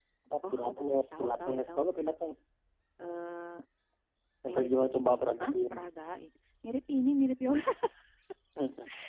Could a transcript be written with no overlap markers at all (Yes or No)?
No